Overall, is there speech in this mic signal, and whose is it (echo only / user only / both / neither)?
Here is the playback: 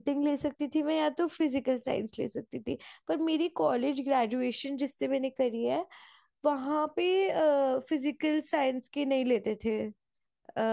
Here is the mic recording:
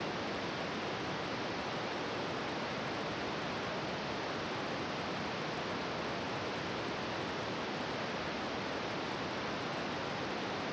neither